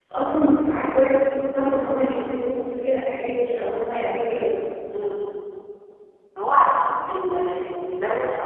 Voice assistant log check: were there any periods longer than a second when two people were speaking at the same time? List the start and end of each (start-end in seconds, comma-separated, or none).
none